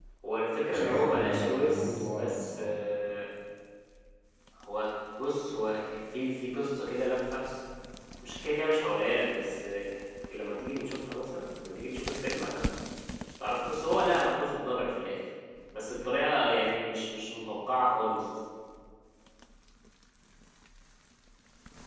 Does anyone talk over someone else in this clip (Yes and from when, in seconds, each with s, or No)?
Yes, from 0.7 s